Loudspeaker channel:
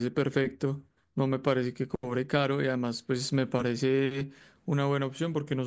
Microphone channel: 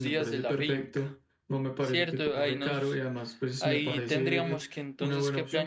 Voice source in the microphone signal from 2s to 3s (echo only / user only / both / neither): both